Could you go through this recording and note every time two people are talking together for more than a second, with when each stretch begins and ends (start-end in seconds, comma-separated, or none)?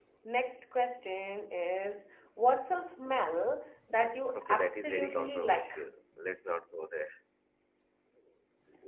4.3-5.7